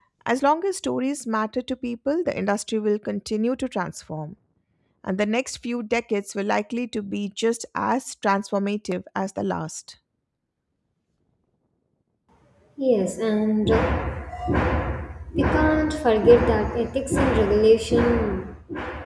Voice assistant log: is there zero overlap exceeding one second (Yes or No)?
Yes